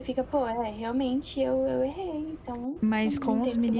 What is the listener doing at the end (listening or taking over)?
taking over